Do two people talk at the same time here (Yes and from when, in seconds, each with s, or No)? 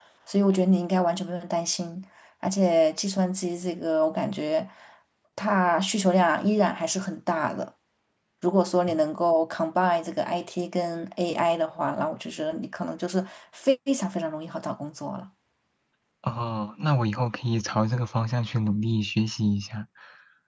No